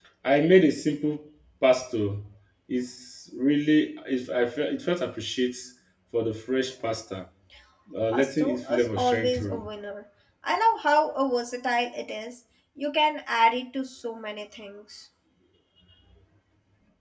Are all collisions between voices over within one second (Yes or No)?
No